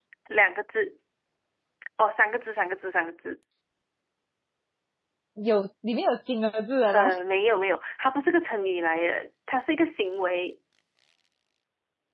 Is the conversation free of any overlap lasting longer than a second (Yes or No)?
Yes